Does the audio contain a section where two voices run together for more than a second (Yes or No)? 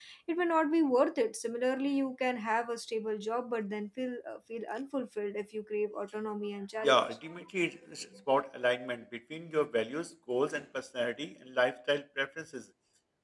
No